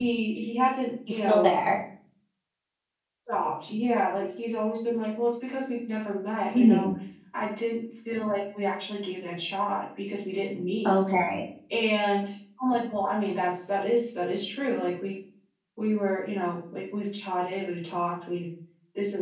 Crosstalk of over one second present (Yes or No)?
No